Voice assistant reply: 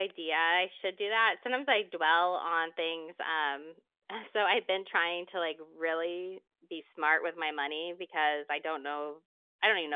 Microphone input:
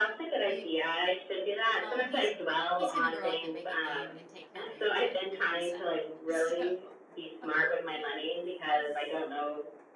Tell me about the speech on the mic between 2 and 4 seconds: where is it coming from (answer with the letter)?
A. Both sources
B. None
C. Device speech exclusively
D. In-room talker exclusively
A